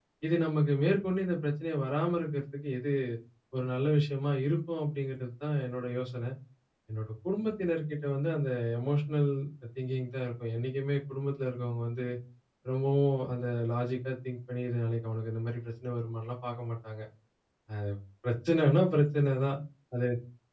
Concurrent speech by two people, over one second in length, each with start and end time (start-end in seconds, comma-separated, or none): none